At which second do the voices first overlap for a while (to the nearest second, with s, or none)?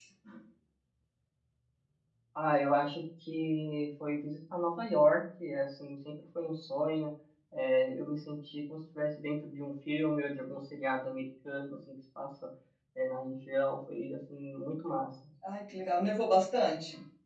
none